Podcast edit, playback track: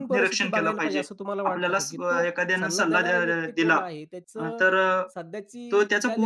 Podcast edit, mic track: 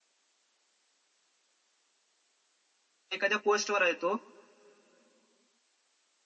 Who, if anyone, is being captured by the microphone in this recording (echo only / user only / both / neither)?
user only